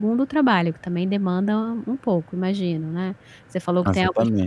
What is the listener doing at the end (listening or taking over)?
listening